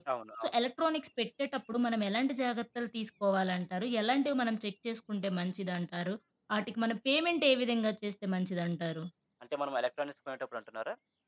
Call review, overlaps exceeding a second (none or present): none